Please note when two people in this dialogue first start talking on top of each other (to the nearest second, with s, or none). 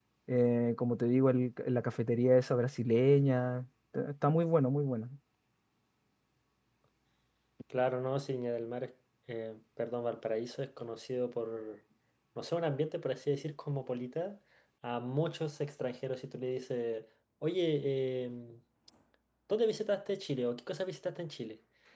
none